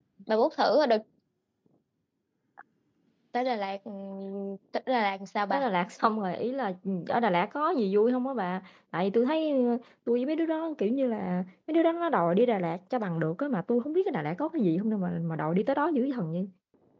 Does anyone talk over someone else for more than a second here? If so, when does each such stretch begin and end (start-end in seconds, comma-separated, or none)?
none